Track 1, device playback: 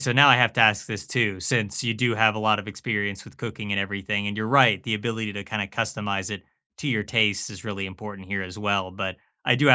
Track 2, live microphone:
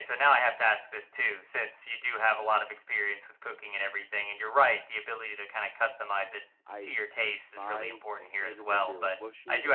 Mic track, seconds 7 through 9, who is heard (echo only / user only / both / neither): both